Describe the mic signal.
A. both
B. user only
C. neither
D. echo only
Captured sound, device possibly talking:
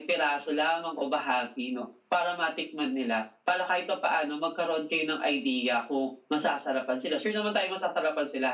D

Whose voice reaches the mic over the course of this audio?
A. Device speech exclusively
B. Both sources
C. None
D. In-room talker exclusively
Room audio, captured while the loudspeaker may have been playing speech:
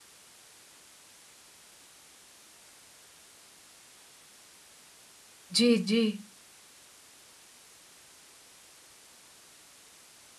D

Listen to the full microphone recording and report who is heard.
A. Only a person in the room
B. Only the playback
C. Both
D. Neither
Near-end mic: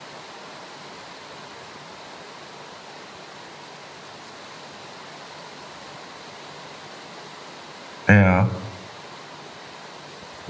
A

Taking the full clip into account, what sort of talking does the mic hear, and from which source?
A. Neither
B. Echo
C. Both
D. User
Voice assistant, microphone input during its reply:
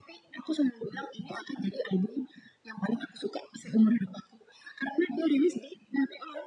B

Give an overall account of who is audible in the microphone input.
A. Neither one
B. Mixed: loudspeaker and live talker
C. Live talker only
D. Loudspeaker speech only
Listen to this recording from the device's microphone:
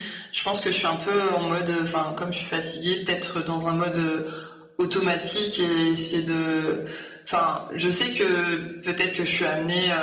D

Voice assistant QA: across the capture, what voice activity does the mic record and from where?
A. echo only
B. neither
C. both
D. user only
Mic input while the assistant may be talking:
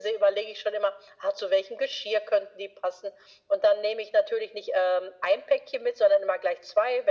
A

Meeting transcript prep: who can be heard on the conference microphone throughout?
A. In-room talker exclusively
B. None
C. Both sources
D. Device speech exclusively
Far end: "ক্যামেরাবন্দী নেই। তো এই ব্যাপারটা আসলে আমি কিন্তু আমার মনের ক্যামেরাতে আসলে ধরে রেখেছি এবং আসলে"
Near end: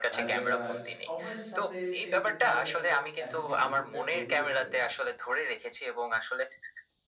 C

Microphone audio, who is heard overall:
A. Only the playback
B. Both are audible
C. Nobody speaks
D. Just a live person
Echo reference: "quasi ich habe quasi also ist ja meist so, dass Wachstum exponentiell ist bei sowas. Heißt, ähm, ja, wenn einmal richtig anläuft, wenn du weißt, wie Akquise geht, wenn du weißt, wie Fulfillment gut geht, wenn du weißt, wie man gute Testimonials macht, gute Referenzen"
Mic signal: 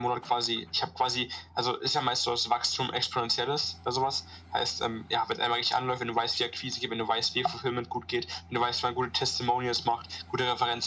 A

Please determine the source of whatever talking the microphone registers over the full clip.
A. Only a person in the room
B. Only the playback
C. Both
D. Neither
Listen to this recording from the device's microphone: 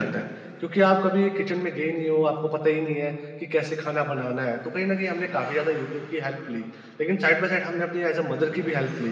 B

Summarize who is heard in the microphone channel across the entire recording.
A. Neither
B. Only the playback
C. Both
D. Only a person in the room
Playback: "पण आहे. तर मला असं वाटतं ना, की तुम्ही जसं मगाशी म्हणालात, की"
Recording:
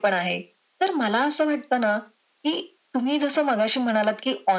B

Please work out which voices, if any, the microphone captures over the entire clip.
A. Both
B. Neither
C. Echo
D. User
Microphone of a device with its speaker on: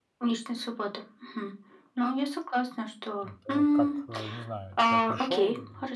A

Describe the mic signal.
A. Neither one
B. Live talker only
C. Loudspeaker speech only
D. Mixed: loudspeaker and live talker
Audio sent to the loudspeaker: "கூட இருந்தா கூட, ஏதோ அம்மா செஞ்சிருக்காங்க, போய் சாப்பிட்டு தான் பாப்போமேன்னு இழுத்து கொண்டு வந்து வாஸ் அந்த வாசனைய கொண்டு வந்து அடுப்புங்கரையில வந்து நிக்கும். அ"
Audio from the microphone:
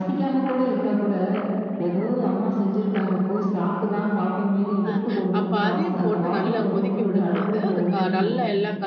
D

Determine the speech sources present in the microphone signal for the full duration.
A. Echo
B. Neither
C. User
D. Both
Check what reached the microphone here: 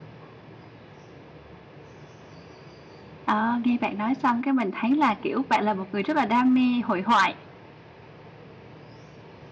C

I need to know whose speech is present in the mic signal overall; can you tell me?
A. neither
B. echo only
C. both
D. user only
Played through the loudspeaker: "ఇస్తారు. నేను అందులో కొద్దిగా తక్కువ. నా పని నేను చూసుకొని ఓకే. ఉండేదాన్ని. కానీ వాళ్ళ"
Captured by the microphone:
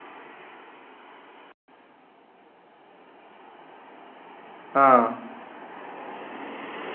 D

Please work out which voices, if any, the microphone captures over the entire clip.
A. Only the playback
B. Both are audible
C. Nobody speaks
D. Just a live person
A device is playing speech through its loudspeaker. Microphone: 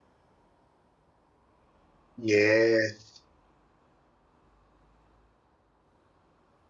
D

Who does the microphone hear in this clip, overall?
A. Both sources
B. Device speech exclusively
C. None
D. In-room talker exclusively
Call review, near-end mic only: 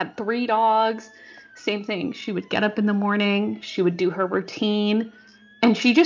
B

